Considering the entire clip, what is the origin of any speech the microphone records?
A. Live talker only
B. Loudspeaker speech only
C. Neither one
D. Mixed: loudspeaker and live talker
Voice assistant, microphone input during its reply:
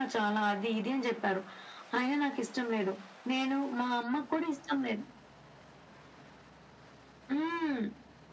B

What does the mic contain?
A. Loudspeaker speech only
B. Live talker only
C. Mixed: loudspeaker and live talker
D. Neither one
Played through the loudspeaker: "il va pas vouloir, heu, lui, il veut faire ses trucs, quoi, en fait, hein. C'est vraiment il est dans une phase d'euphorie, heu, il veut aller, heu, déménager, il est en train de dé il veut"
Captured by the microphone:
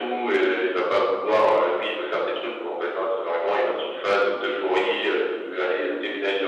A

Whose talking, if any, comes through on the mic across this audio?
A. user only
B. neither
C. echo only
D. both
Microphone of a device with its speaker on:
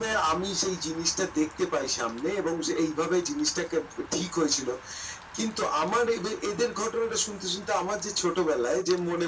C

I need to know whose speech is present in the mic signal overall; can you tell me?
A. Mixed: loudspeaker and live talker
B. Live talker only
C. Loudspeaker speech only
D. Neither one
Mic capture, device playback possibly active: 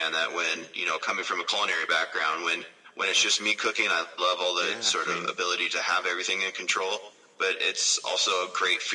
A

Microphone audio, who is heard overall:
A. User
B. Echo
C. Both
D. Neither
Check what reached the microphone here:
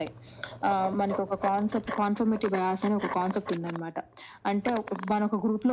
B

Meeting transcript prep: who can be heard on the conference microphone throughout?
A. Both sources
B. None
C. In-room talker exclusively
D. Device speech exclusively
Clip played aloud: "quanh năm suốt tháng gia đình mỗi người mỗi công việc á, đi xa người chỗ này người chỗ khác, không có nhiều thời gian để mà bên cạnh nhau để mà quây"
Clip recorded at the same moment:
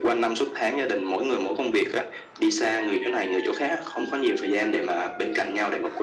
D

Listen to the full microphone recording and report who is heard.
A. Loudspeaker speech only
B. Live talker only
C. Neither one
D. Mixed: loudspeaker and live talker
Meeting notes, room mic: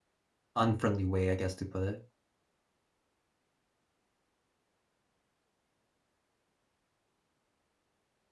B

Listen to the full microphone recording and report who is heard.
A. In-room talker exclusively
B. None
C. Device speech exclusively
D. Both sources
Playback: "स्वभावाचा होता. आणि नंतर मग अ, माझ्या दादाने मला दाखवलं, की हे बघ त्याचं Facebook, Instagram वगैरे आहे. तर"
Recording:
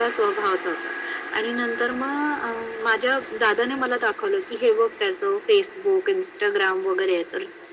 C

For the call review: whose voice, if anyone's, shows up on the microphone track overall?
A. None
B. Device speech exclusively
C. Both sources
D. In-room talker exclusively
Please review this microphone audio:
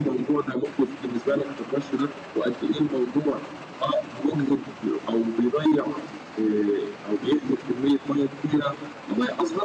B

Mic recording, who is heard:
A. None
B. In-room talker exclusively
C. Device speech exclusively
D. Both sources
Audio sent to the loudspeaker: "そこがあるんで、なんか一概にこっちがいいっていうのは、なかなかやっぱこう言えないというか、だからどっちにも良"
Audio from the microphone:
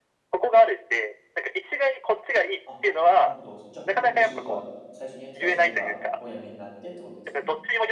D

